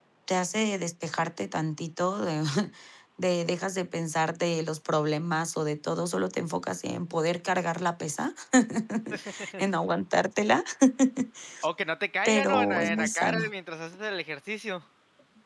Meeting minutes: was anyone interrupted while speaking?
Yes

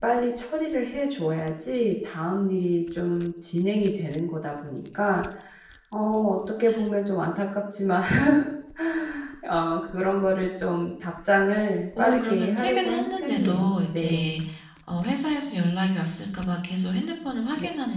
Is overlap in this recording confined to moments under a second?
No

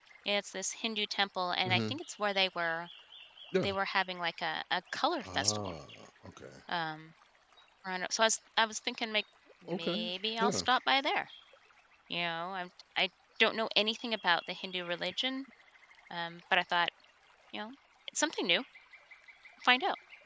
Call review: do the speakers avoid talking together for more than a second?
Yes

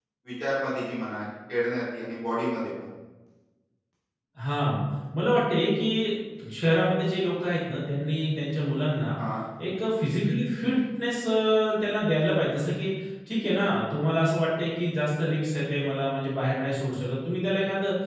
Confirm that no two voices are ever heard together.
Yes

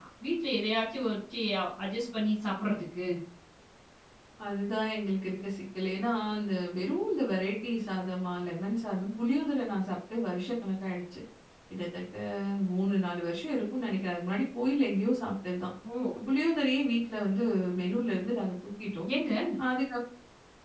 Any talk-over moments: No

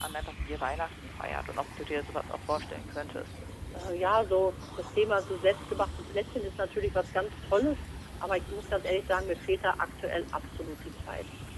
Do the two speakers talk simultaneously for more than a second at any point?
No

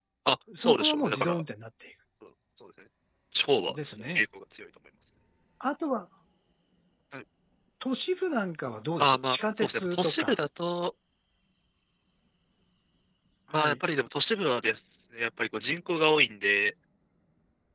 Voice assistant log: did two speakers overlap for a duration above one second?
Yes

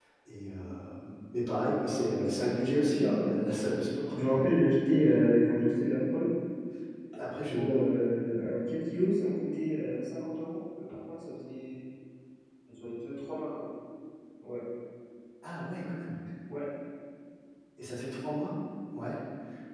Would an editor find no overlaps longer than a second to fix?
No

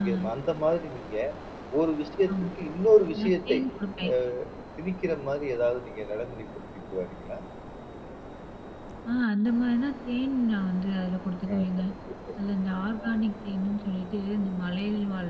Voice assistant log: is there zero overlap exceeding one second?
Yes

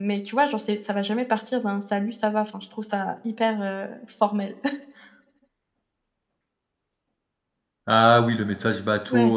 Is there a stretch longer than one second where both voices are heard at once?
No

